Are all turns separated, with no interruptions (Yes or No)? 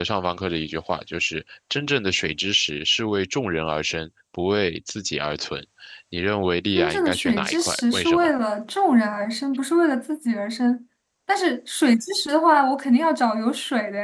No